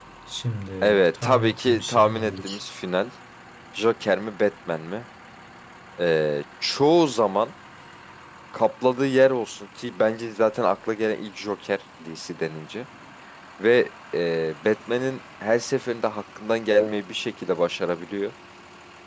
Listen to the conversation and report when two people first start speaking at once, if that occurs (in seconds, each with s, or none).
0.8 s